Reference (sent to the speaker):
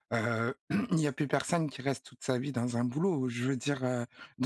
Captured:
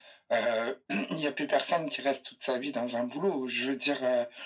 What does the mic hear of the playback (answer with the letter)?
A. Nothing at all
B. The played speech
B